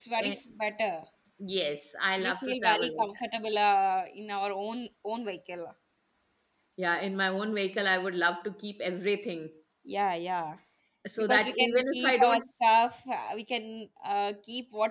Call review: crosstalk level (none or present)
present